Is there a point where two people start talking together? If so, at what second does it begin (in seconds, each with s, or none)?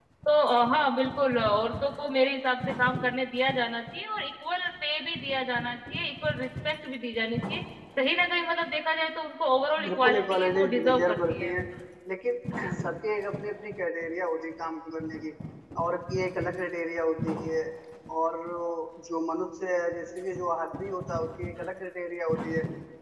9.8 s